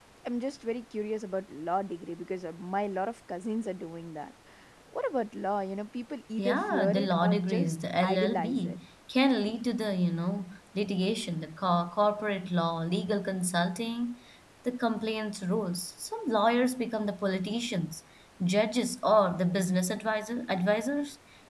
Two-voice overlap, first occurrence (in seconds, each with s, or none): 6.4 s